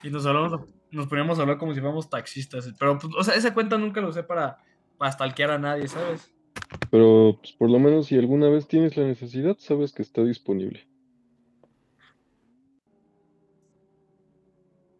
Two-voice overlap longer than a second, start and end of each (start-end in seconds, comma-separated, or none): none